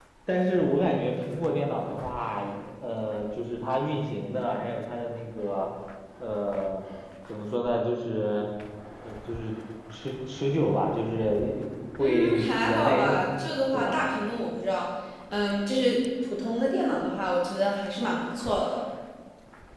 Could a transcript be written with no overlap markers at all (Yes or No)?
No